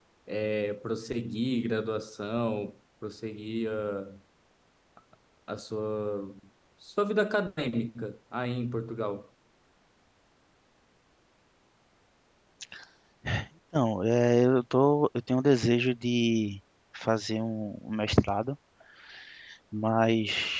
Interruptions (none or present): none